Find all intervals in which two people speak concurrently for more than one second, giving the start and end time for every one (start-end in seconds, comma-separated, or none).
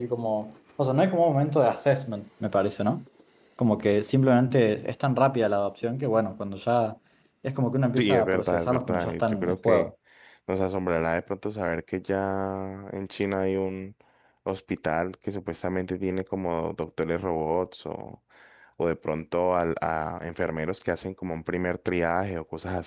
8.0-9.9